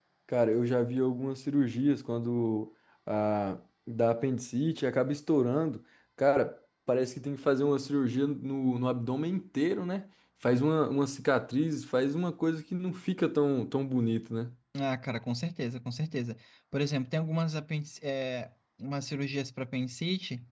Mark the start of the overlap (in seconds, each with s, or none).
none